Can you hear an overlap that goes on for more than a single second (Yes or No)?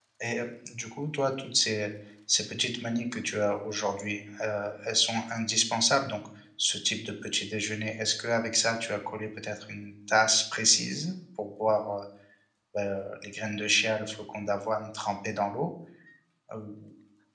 No